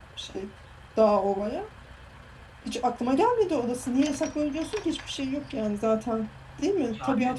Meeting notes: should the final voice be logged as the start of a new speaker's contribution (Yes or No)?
No